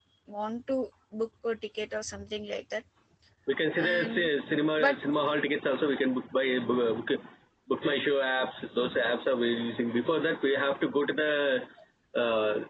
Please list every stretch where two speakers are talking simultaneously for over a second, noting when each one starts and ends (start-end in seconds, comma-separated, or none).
none